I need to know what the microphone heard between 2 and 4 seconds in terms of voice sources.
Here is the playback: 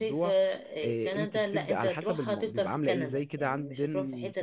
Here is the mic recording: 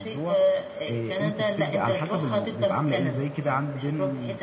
echo only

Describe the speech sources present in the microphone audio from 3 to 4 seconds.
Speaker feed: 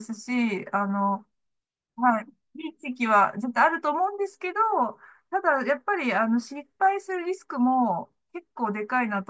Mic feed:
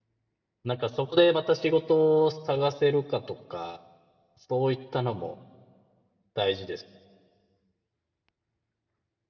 user only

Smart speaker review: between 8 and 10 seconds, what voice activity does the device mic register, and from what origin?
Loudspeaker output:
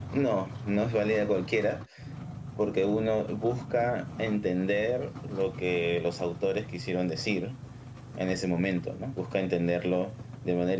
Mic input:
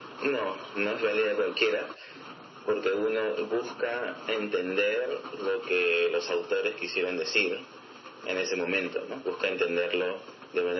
echo only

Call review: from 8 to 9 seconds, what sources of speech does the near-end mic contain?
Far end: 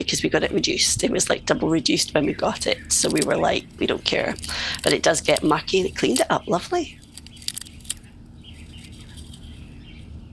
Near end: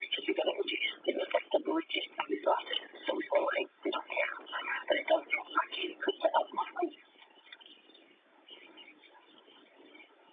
neither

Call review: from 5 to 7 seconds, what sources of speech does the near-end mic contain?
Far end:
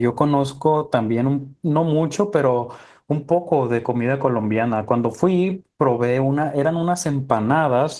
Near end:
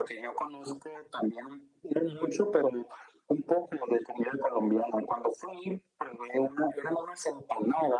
echo only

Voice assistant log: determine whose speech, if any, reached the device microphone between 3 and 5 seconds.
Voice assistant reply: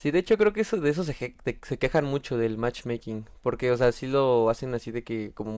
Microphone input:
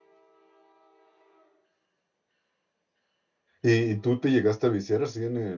user only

